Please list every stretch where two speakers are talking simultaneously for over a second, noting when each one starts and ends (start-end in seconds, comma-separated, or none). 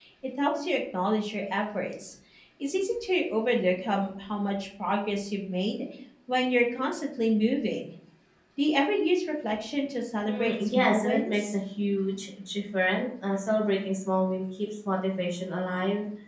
10.2-11.5